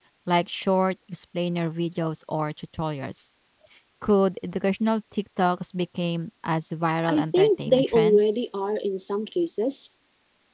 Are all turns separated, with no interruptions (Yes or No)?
No